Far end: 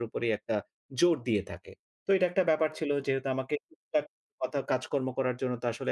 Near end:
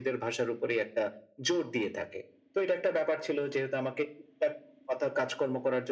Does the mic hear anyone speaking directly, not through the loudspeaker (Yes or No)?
No